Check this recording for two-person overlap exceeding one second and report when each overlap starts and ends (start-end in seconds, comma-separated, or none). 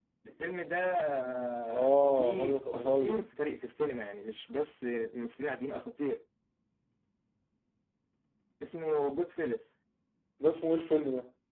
1.7-3.2